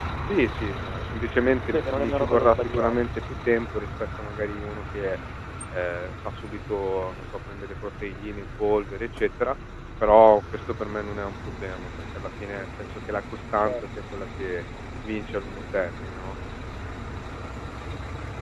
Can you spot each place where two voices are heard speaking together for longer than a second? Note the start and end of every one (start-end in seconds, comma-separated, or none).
1.7-3.0